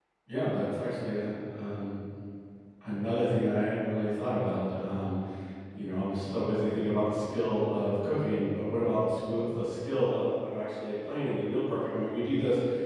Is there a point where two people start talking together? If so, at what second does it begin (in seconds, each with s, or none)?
none